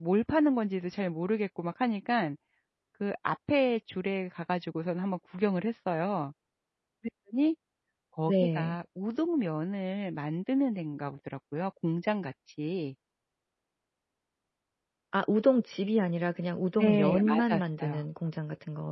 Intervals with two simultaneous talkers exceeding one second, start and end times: 16.8-18.0

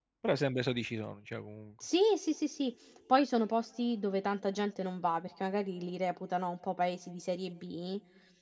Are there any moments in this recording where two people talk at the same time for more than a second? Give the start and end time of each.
none

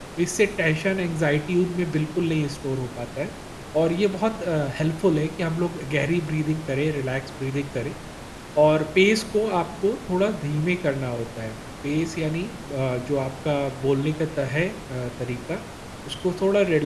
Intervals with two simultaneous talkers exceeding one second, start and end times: none

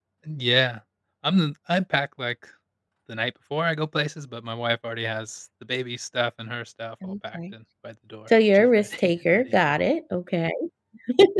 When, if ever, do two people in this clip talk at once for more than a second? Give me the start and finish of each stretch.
8.5-9.8

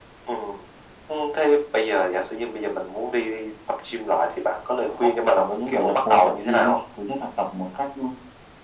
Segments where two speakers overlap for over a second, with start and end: 5.0-6.8

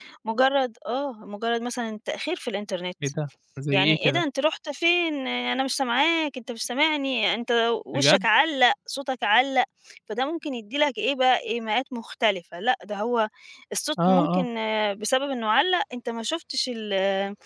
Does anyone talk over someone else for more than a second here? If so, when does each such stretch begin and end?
none

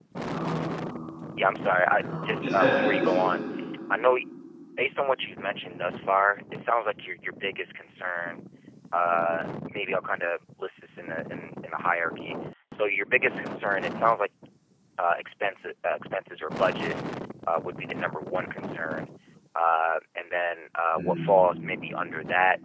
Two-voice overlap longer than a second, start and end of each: 1.9-3.3

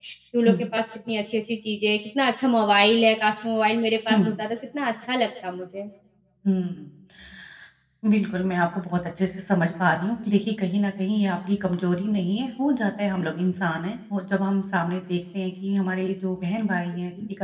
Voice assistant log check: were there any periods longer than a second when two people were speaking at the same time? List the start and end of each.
none

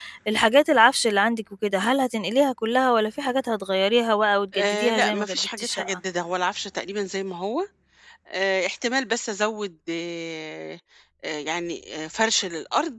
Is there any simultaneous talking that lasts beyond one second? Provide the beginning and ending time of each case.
4.5-6.0

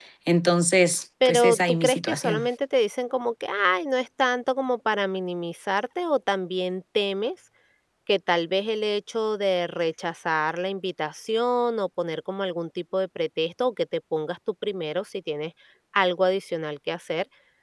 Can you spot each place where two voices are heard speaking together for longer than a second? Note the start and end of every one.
1.2-2.5

